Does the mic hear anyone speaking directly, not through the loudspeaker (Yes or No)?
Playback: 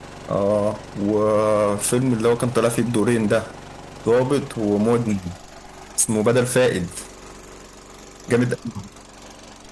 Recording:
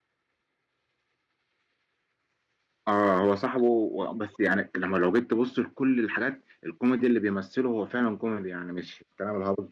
Yes